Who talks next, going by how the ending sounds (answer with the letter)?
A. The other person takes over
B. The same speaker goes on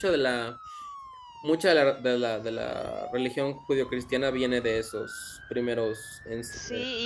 A